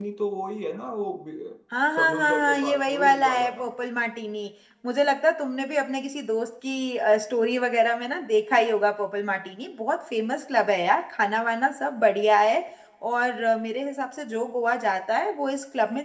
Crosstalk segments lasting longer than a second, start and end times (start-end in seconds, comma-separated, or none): 2.0-3.7